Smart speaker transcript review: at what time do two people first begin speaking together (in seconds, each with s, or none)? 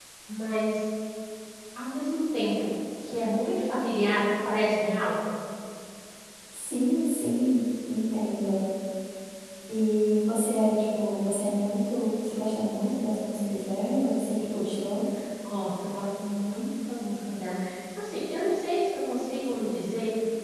none